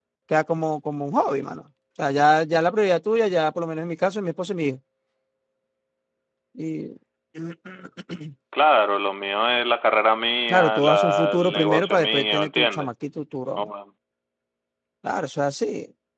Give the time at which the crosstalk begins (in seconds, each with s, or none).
10.5 s